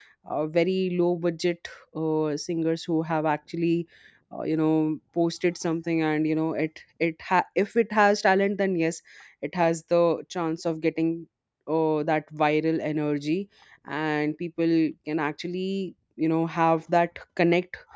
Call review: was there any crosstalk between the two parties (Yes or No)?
No